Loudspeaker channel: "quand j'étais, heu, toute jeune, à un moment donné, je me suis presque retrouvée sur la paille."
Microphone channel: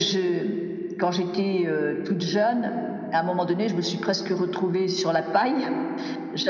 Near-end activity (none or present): none